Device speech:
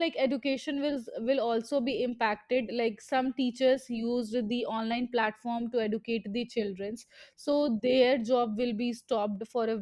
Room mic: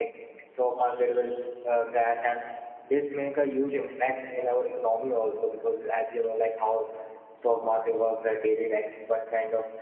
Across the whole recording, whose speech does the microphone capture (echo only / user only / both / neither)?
user only